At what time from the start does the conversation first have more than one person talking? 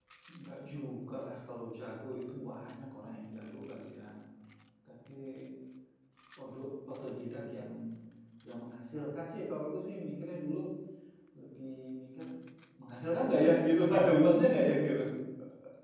none

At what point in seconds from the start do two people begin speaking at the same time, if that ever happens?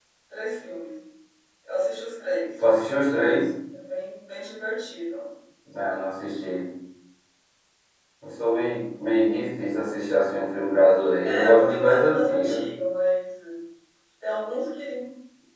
11.2 s

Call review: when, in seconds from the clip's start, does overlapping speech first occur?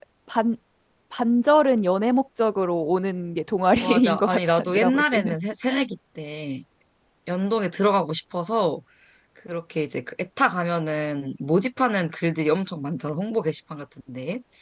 3.8 s

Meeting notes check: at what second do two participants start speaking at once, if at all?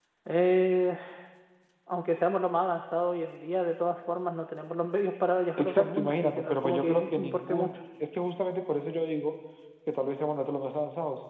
5.6 s

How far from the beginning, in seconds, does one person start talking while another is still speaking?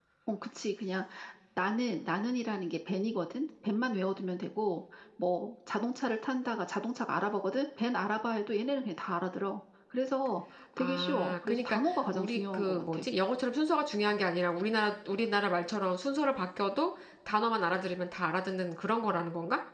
10.8 s

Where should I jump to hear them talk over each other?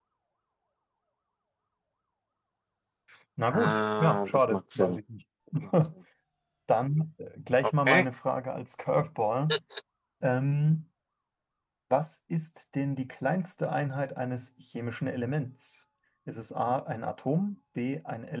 3.5 s

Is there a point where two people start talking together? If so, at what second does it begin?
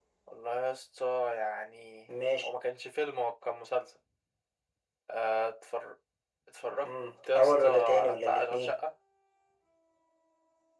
7.3 s

